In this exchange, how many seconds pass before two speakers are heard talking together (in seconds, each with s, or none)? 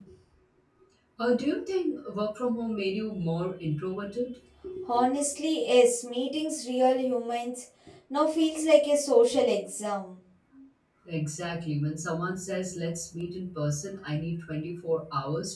none